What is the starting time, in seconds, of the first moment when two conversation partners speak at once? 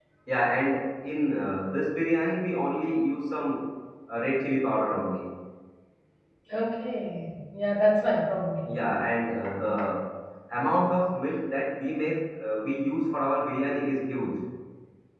none

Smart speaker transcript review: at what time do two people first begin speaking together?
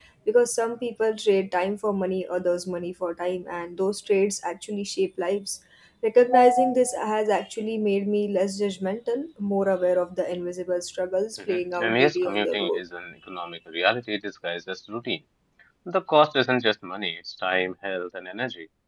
11.4 s

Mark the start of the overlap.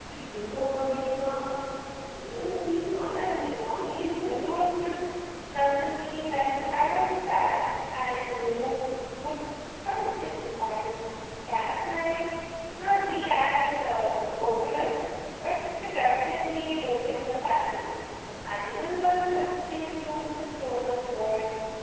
3.1 s

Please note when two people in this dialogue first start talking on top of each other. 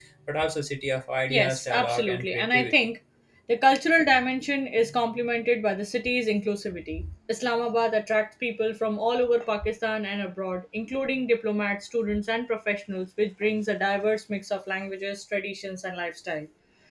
1.3 s

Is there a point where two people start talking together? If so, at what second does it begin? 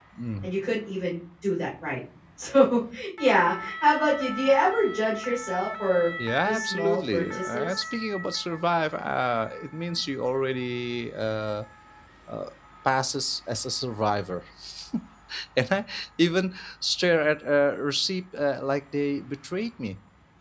6.4 s

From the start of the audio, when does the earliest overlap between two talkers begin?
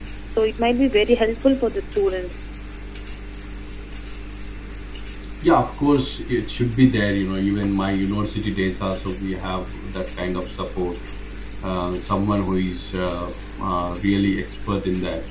none

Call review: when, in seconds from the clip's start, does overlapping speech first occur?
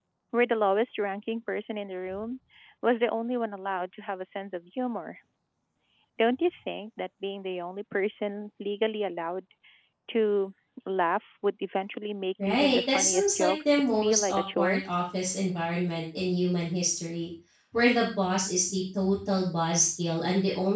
12.4 s

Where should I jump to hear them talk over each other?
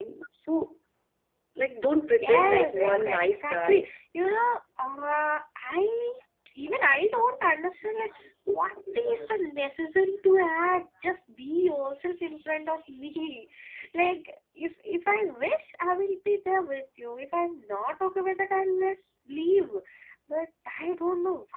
2.2 s

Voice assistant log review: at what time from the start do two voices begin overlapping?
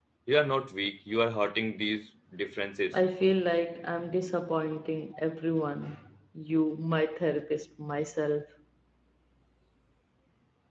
none

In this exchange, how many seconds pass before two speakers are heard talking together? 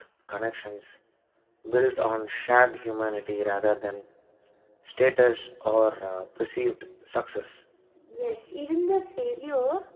none

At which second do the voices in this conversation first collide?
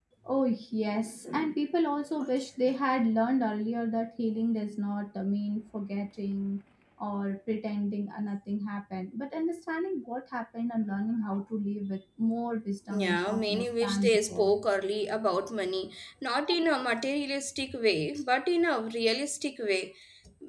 12.9 s

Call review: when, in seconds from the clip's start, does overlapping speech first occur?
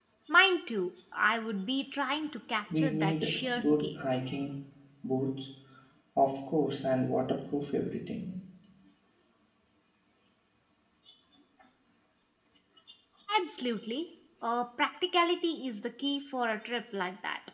2.7 s

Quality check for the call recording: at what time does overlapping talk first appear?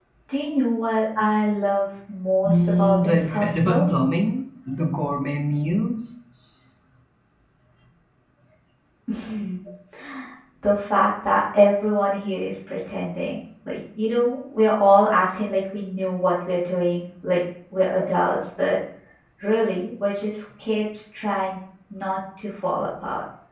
2.4 s

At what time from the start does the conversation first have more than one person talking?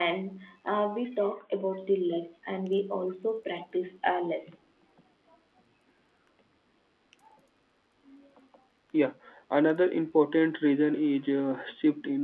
none

